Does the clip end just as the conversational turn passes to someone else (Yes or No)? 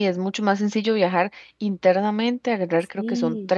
No